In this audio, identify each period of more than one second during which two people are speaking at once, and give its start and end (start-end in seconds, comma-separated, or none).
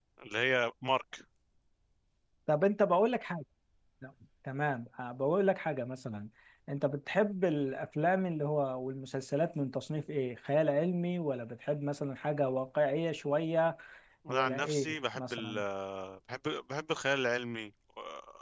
14.3-15.6